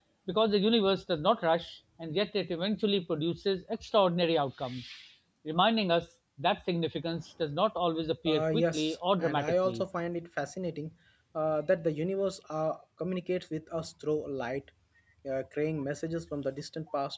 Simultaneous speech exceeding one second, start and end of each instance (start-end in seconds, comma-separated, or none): 8.2-9.8